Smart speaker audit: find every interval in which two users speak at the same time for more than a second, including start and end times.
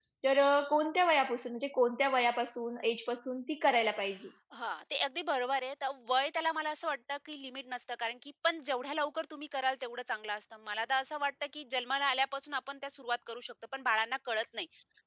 none

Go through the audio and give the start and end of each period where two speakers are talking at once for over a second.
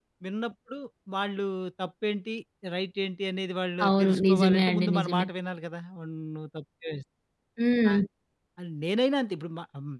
3.9-5.3

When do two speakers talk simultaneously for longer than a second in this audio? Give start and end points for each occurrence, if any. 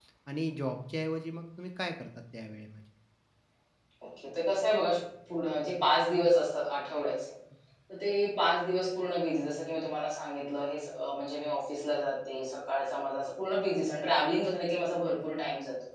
none

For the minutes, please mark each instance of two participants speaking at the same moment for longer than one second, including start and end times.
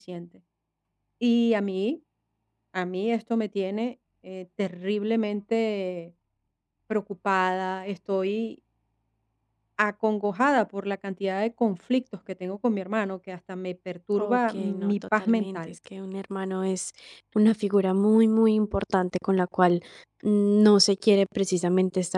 14.2-15.6

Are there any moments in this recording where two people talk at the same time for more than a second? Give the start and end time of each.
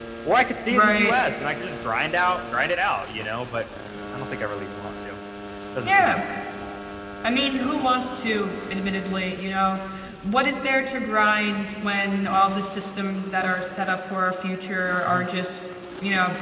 none

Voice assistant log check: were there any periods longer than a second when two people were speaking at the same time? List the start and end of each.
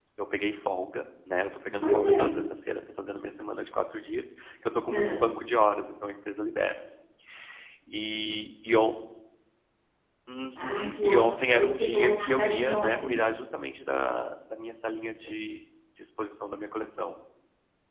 10.6-13.2

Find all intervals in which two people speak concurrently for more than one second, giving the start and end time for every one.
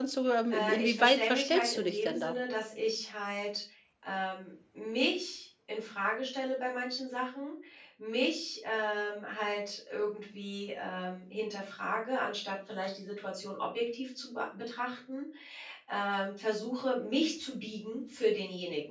0.5-2.3

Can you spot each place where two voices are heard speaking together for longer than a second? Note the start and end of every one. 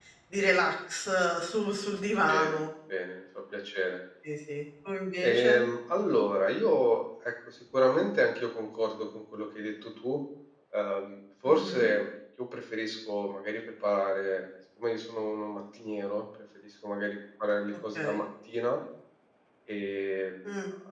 none

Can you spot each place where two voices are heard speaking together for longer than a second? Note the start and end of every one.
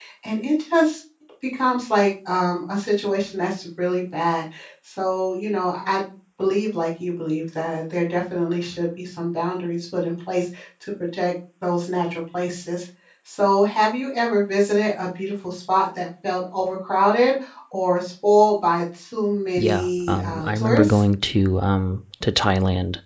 19.6-21.0

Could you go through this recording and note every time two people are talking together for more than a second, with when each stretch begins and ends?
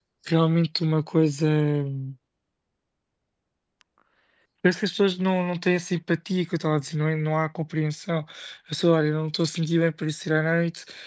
none

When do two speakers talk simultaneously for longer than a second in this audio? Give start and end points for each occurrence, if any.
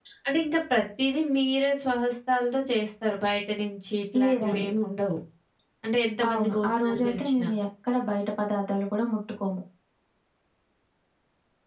6.3-7.5

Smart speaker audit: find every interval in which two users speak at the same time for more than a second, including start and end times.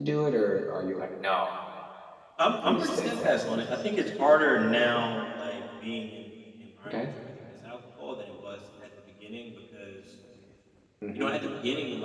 2.4-3.8

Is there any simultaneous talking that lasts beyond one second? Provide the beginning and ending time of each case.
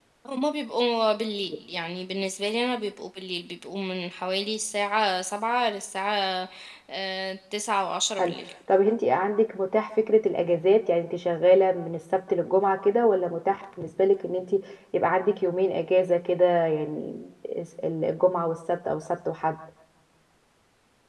none

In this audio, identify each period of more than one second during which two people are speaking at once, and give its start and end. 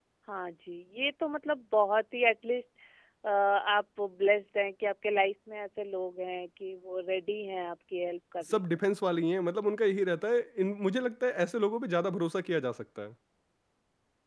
none

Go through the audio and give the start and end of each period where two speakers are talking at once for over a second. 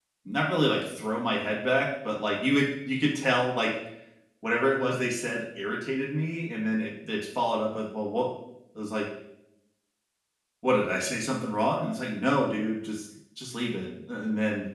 none

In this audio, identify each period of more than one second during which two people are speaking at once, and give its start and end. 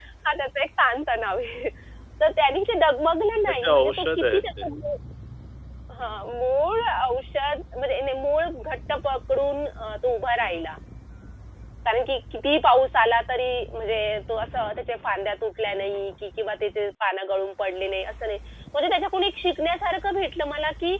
3.5-4.7

